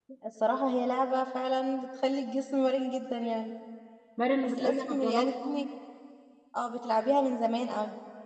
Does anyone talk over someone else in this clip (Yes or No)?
Yes